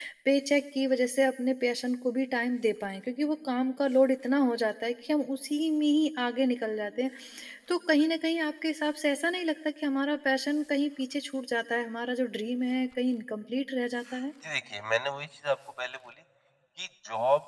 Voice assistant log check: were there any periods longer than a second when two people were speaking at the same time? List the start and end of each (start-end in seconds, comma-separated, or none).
none